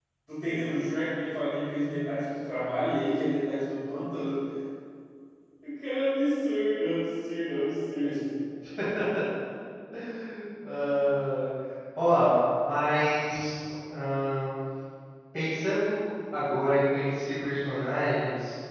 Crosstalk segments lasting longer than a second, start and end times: none

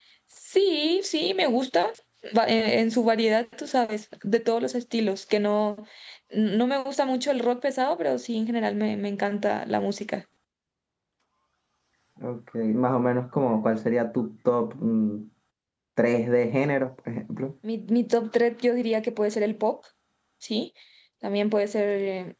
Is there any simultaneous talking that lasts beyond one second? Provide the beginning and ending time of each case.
none

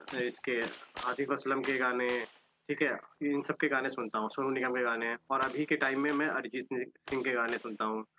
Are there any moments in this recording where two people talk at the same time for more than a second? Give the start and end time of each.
none

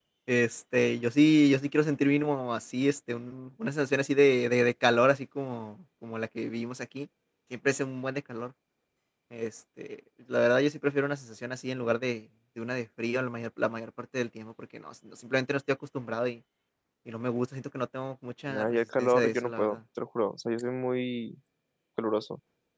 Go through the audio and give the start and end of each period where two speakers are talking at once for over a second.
18.5-19.8

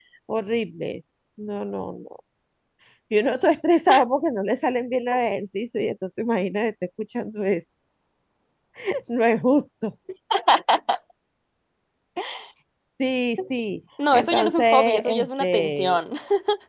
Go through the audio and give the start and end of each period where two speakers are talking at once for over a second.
14.1-16.0

